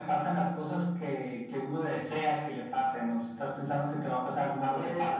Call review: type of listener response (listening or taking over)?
taking over